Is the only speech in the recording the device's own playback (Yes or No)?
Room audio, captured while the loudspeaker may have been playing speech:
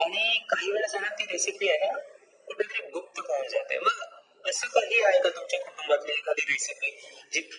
Yes